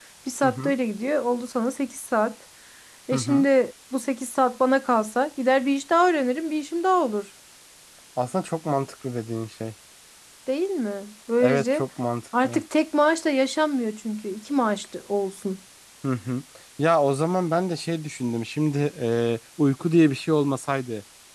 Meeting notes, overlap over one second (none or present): none